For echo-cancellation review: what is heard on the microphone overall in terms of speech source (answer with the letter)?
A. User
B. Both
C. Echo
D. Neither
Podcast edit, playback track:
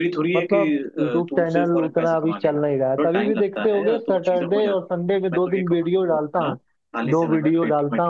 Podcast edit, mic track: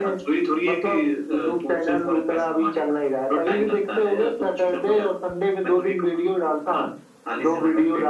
C